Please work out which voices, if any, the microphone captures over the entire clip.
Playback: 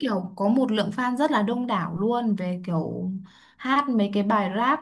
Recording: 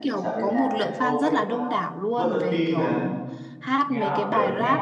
both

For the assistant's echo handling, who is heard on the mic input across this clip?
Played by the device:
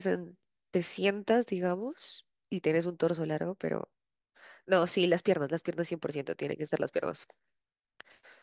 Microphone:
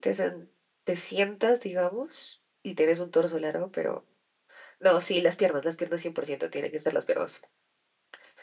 echo only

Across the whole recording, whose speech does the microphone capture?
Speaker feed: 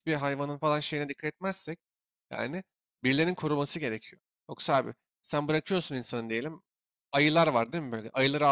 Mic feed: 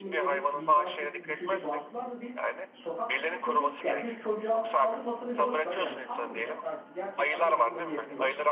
both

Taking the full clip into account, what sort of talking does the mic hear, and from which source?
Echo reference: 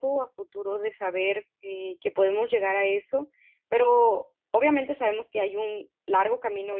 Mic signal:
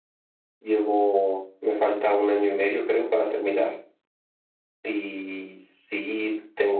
user only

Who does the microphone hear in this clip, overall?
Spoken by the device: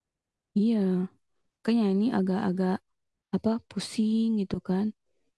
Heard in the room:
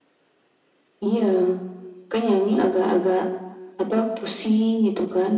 echo only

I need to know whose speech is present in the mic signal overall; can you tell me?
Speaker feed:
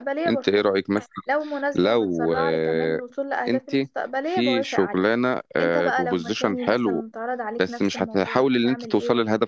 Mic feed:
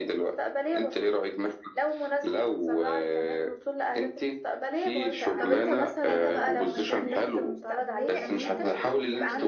both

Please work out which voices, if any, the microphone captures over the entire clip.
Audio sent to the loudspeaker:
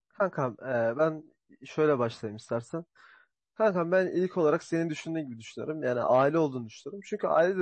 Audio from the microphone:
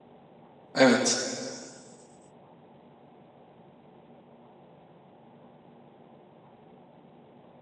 user only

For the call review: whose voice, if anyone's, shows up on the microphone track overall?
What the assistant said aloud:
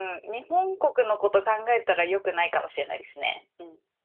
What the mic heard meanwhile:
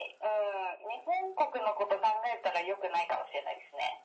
echo only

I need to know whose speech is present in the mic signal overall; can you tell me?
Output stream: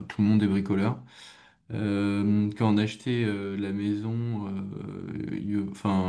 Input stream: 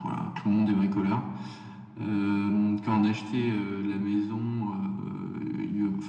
echo only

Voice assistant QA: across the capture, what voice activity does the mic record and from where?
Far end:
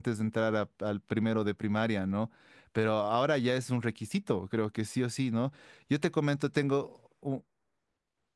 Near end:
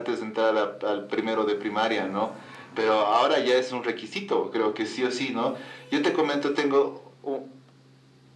echo only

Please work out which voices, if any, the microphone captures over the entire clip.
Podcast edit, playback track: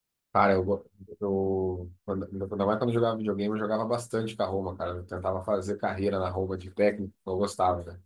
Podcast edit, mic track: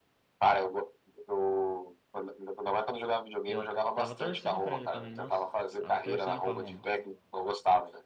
both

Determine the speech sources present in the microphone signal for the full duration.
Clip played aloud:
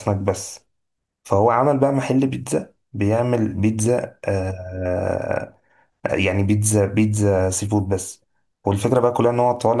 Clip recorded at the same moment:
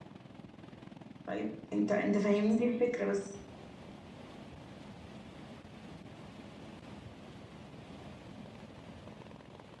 user only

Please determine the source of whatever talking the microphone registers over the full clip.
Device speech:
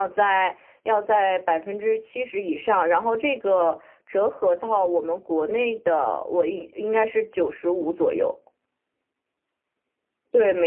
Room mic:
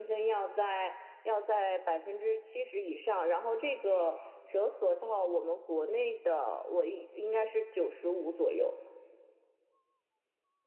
echo only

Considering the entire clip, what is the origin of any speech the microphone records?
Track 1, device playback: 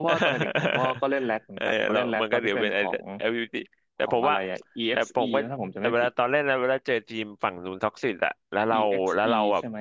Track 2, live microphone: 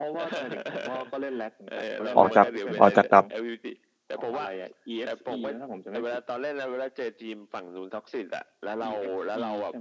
both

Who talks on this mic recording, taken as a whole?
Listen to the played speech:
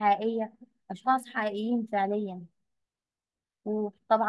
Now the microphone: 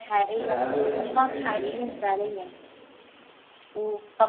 both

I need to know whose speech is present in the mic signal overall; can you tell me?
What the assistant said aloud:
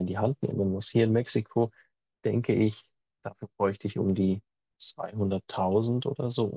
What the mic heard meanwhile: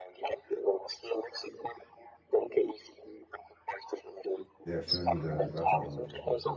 both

